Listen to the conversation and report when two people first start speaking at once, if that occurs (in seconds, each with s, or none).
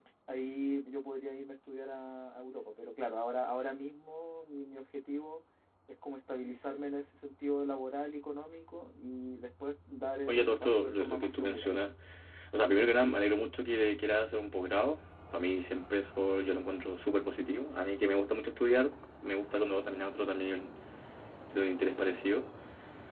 10.3 s